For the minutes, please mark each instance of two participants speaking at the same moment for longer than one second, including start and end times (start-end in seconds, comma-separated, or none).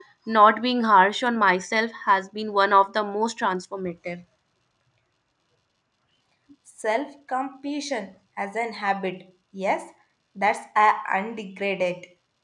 none